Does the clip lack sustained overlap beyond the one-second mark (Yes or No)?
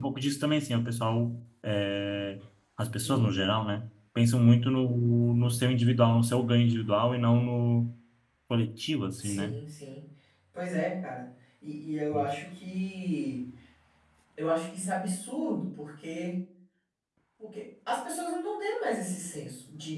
Yes